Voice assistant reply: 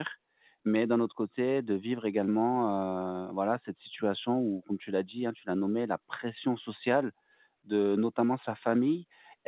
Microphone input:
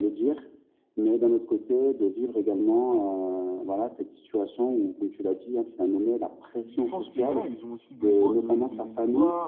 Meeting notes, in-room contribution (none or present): present